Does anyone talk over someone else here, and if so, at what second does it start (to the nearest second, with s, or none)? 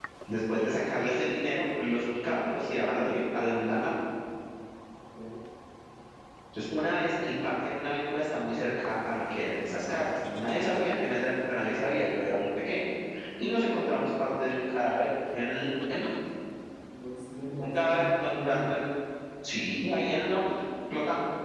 18 s